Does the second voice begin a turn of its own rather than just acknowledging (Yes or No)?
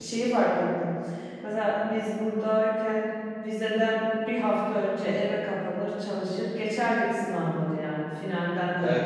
No